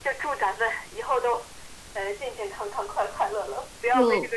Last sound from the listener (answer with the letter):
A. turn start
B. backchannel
A